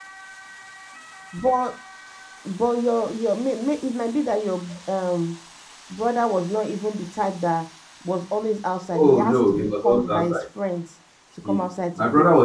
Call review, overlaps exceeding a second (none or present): present